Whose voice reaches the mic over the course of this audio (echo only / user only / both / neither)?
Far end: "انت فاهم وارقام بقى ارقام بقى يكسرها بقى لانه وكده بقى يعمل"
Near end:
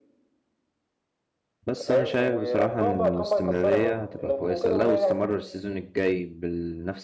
both